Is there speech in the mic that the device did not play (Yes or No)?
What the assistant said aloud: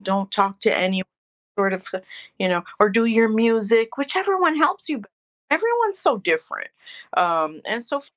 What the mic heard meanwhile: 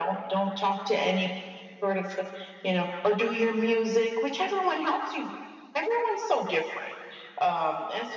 No